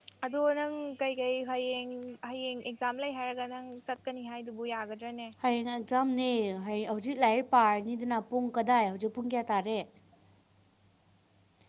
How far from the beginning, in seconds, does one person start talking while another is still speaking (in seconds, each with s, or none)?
none